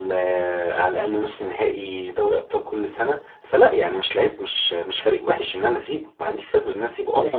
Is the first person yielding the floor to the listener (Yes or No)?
Yes